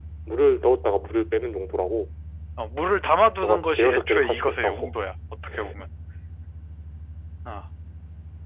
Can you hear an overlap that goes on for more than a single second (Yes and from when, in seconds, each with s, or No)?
Yes, from 3.4 s